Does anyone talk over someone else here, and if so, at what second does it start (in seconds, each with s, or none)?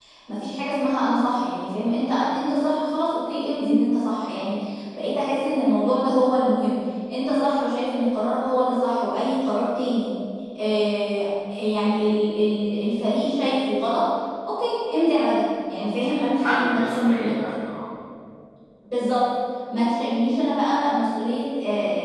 16.0 s